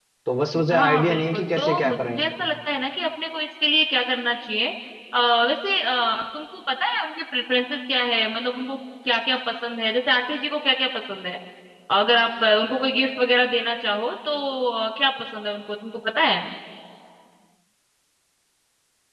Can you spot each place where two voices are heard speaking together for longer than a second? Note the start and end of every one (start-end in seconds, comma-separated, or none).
0.7-2.2